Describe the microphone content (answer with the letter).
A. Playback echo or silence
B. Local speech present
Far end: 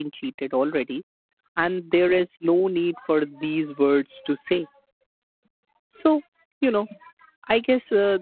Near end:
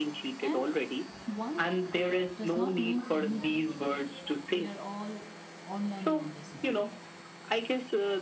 B